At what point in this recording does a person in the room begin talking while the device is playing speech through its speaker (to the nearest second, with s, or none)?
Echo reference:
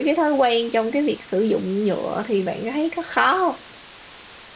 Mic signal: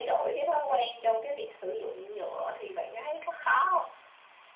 none